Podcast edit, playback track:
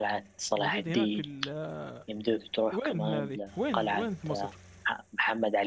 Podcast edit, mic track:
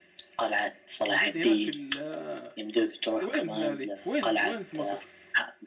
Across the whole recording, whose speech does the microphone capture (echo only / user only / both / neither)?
echo only